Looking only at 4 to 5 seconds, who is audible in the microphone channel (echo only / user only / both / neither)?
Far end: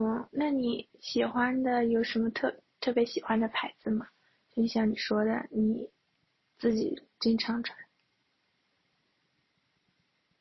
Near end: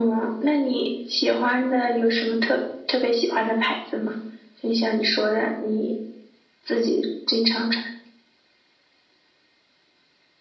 echo only